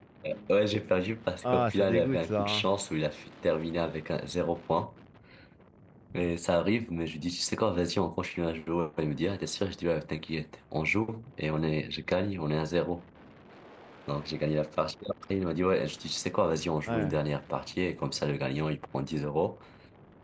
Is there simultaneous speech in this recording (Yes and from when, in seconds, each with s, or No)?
Yes, from 1.4 s